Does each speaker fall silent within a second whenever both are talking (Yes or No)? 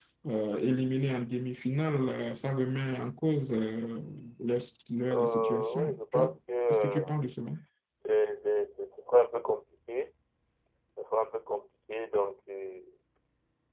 No